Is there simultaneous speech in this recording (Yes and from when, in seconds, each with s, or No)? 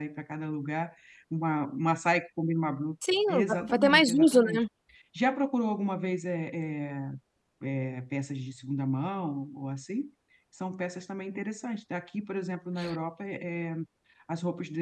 Yes, from 3.3 s